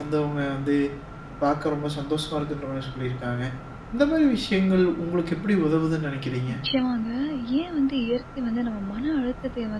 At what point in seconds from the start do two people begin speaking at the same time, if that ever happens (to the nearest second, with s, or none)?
none